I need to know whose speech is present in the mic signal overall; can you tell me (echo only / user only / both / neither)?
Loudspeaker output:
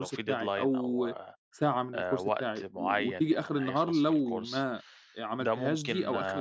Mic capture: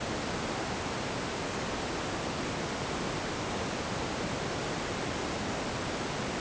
neither